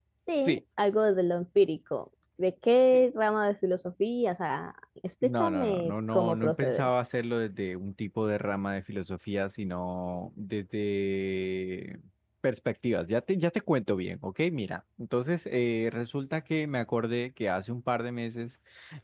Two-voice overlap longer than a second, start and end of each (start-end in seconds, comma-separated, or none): 5.2-6.9